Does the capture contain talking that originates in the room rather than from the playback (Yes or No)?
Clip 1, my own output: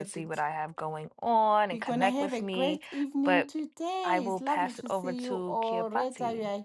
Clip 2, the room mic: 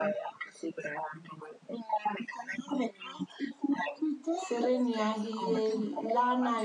Yes